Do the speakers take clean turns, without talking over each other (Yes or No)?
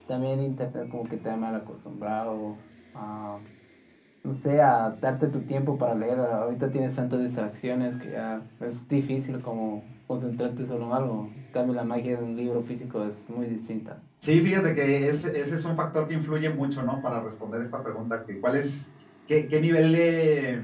Yes